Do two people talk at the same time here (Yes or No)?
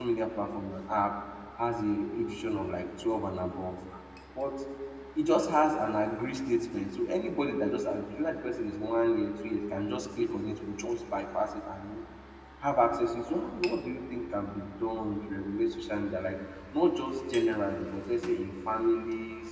No